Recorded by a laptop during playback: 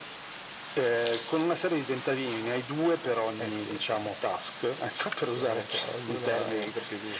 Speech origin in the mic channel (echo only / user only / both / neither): echo only